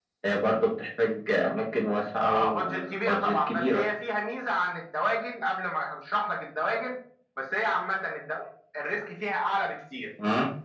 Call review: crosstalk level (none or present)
present